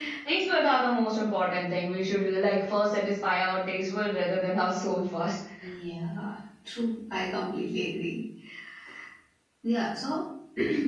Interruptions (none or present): none